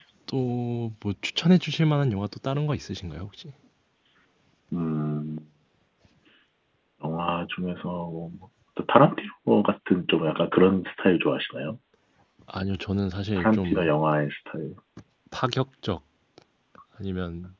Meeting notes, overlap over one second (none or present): none